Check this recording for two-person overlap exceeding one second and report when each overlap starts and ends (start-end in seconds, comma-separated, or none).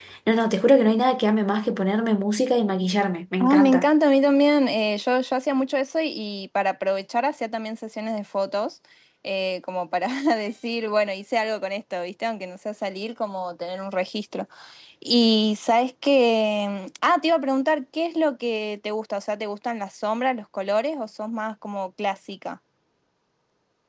none